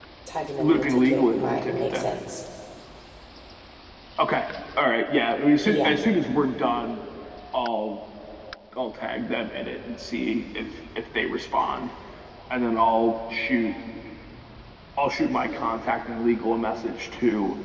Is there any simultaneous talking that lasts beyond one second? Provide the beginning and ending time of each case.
0.6-2.0

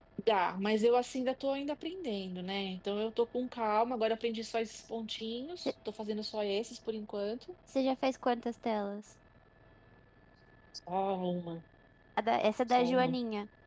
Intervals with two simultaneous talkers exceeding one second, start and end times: none

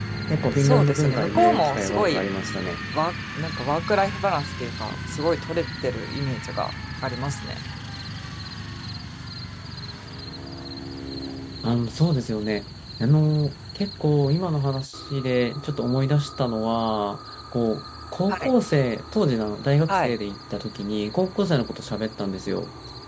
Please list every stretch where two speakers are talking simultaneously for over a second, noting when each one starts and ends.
0.6-2.2

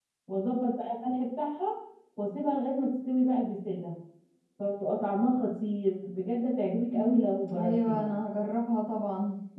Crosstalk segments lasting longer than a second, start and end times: 6.9-8.1

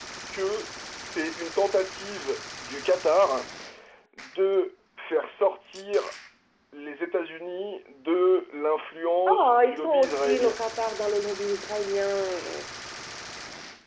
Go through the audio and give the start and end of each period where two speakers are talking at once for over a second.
9.3-10.6

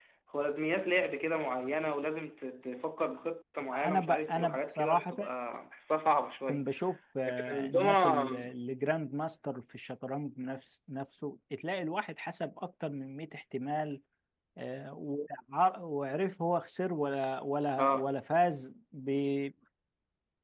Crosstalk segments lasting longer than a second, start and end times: 3.7-5.1, 7.3-8.5

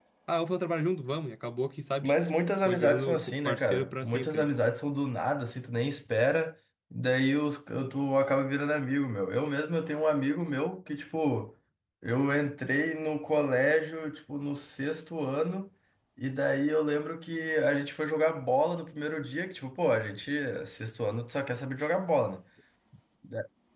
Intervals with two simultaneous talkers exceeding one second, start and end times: 2.6-4.5

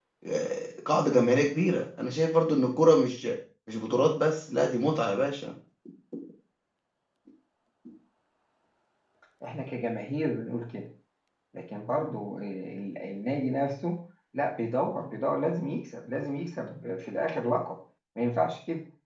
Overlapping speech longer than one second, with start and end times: none

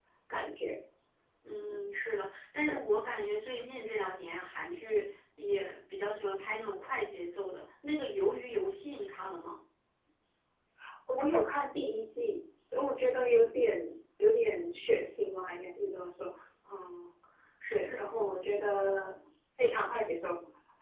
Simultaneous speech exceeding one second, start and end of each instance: none

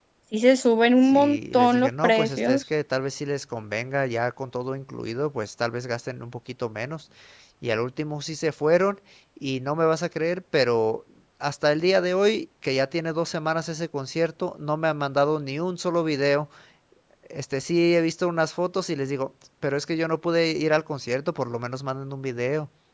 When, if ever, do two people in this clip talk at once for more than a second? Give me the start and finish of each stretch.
1.0-2.6

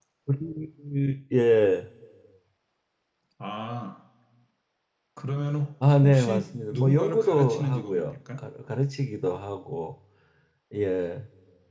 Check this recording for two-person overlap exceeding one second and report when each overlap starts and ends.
6.0-8.4

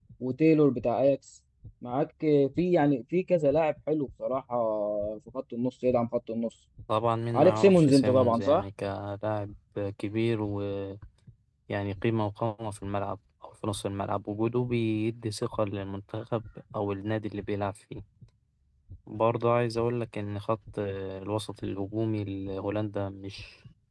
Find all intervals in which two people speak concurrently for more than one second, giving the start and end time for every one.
7.3-8.6

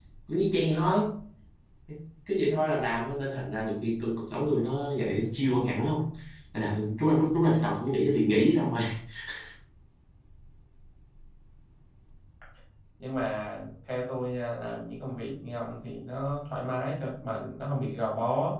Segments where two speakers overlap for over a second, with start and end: none

